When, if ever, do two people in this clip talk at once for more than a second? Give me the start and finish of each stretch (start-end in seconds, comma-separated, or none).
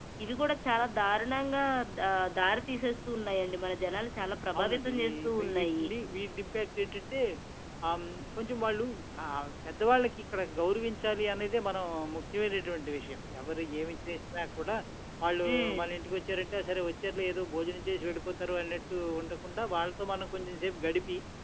4.6-5.8